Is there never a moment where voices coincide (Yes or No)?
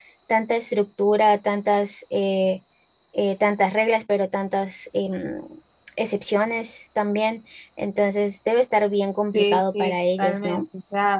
No